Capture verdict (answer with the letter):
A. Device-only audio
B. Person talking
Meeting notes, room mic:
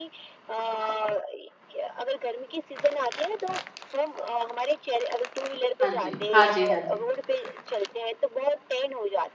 B